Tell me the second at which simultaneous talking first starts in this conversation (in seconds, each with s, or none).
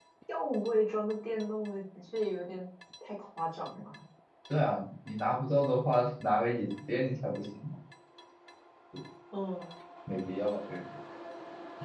none